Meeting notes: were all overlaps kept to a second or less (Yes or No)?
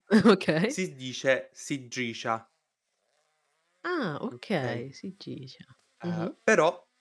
Yes